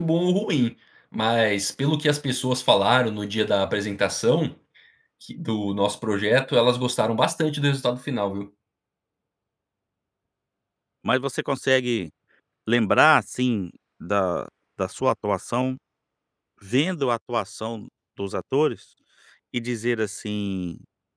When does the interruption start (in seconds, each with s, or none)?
none